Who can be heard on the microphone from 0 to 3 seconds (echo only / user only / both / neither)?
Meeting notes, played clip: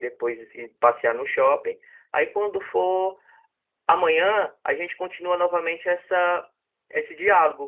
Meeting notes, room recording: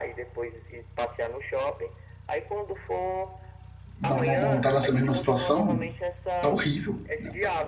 echo only